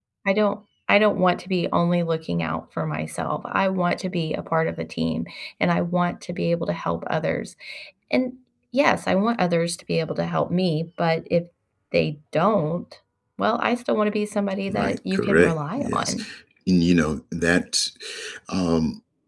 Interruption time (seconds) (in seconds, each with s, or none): 14.7 s